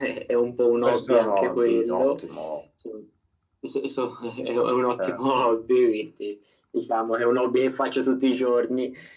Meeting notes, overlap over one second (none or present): present